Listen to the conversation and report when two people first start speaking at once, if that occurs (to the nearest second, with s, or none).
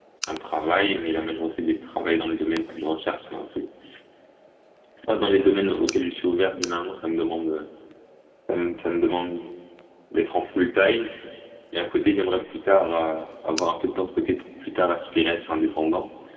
none